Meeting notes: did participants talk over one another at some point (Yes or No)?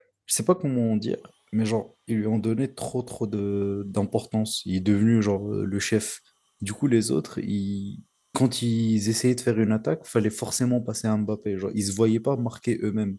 No